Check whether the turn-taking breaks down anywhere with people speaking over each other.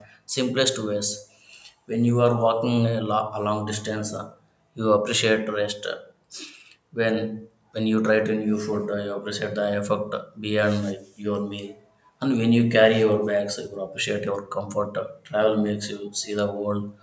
No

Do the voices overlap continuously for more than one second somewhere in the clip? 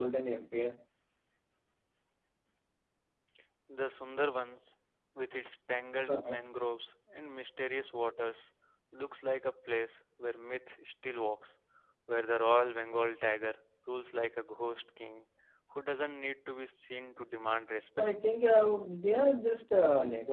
No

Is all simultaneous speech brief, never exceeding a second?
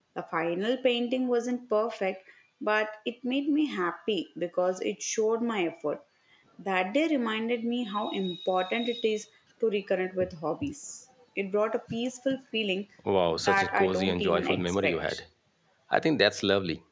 No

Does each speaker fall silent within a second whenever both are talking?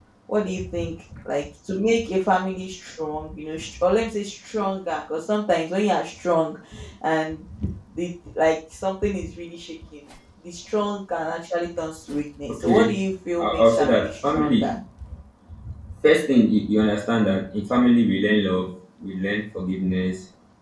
No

